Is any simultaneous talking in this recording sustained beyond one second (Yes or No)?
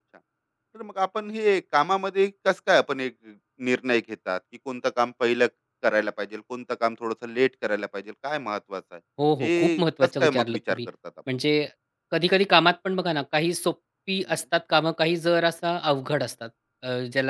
Yes